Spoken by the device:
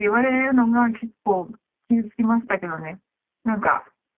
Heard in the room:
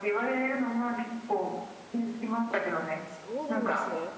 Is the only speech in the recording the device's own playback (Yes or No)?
No